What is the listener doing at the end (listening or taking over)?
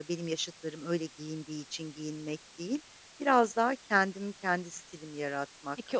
taking over